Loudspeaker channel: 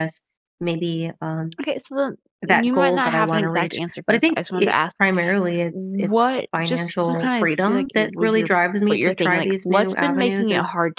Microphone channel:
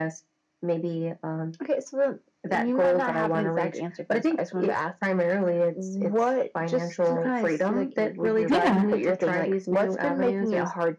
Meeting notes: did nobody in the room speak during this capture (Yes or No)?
No